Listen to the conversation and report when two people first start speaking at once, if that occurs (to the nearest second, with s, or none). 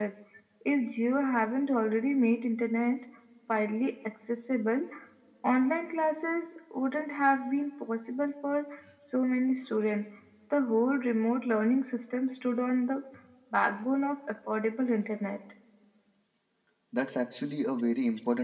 none